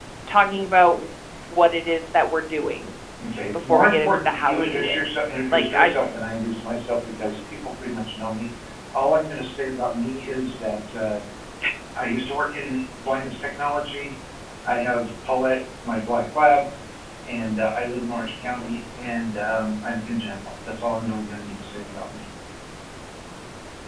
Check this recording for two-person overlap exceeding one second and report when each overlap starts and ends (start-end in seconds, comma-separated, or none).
3.5-5.0